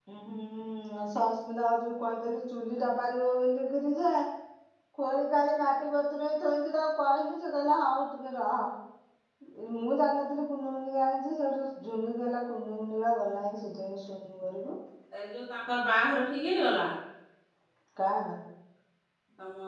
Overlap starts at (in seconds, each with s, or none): none